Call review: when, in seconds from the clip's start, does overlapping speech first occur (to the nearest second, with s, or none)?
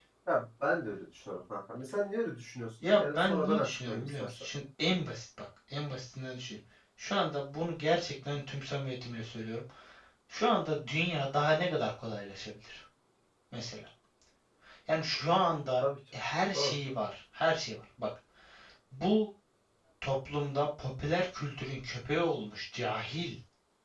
3 s